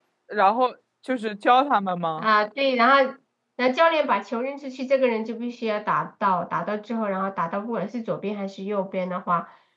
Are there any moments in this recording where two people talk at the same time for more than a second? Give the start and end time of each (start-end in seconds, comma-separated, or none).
none